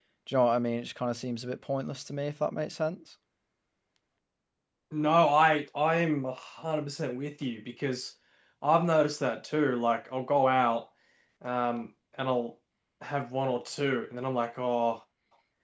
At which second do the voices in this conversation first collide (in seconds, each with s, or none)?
none